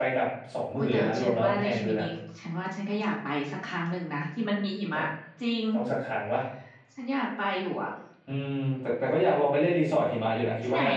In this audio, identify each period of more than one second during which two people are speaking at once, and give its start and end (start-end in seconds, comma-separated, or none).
0.8-2.0